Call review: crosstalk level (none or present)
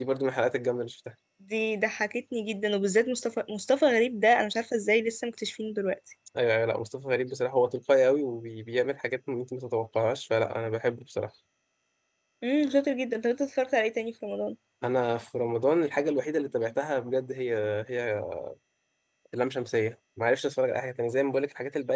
none